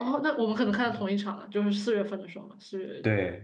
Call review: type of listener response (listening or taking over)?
taking over